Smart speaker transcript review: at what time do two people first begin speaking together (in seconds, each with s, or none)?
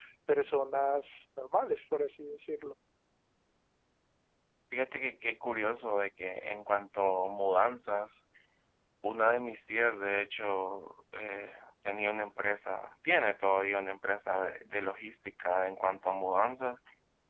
none